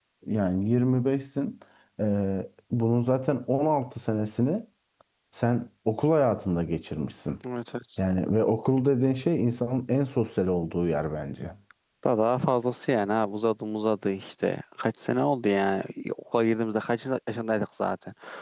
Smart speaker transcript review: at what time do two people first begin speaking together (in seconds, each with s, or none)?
none